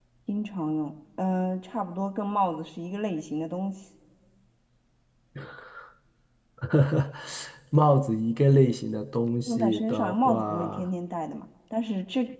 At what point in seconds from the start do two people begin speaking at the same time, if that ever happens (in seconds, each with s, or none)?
9.5 s